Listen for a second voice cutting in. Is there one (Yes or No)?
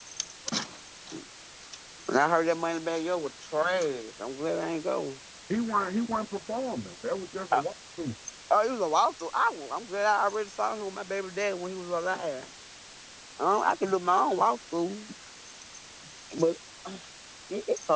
No